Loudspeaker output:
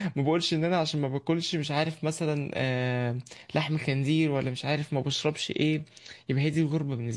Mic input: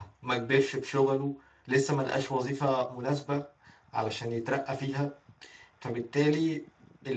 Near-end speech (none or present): present